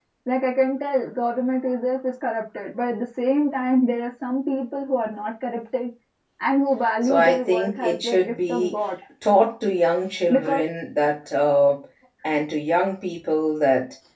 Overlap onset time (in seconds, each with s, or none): 7.0 s